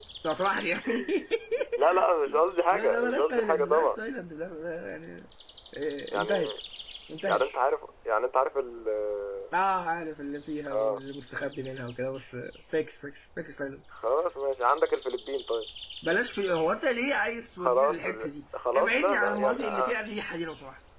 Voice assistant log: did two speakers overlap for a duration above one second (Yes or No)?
Yes